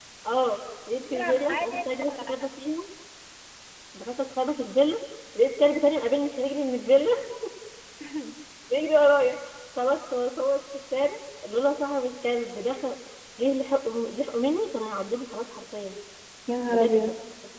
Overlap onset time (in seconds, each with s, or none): 1.0 s